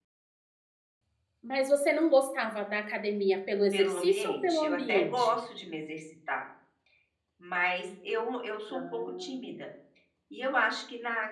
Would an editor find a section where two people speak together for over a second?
Yes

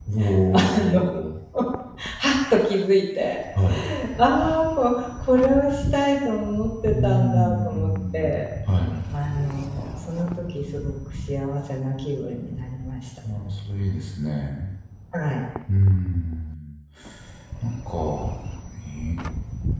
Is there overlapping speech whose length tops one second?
Yes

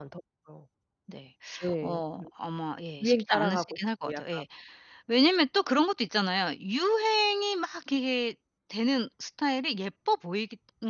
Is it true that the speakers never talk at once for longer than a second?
No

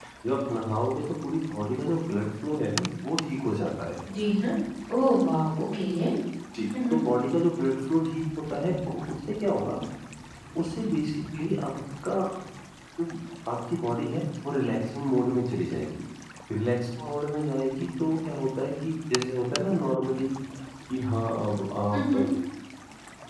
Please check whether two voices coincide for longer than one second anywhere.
No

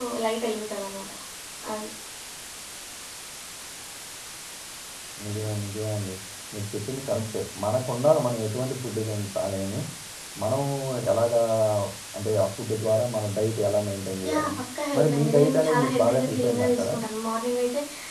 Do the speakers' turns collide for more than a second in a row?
Yes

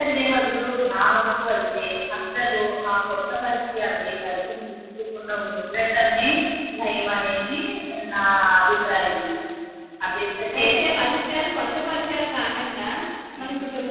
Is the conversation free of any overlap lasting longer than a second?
Yes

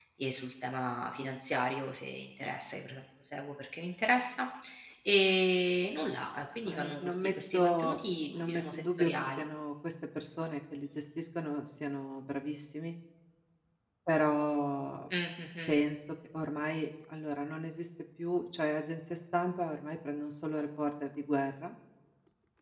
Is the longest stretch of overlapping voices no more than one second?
No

